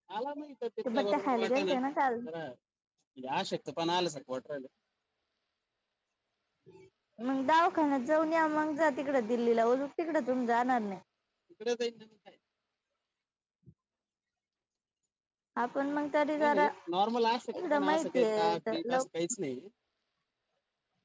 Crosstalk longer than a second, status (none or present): present